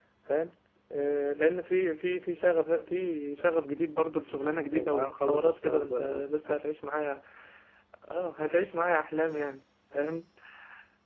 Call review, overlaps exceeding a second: present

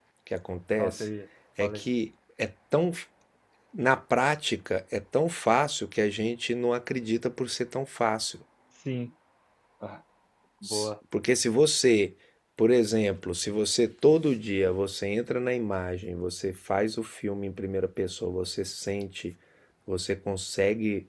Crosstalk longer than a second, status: none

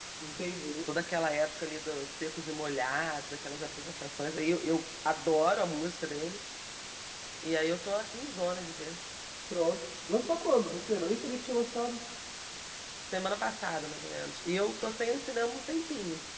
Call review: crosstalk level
none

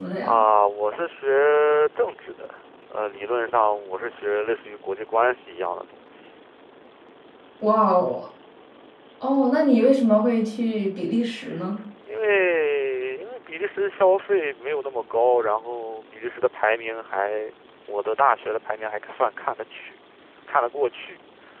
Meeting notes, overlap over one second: none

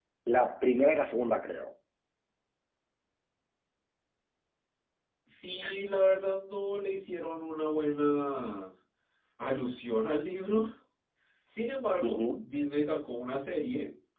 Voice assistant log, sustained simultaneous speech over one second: none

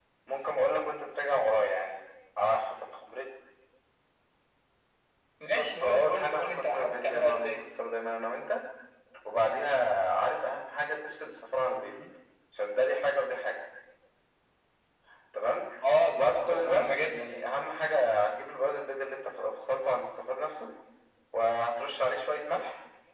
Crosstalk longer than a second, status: present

